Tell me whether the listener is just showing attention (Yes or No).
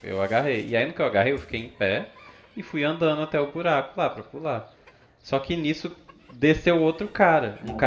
Yes